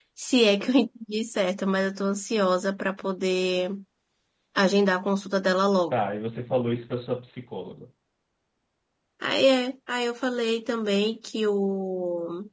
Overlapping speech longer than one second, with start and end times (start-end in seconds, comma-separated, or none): none